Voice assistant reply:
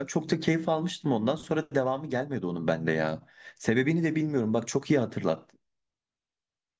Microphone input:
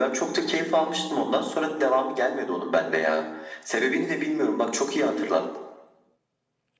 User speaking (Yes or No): No